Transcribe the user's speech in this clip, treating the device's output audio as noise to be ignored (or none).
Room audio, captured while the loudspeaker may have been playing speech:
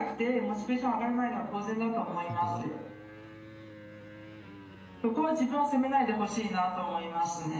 なんか、